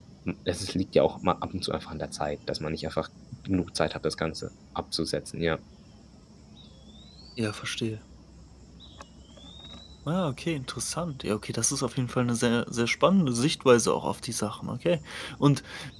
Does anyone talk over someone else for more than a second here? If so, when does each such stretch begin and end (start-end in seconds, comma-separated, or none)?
none